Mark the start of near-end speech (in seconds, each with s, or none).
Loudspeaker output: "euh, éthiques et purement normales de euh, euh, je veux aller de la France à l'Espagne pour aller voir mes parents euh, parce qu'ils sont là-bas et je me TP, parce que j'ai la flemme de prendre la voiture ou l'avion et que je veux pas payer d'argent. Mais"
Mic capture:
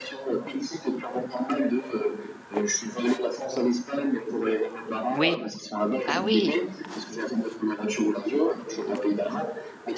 5.1 s